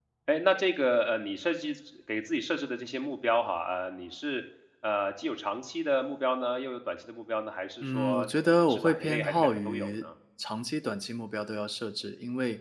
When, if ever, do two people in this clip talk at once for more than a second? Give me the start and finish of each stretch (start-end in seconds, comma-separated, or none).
7.8-10.0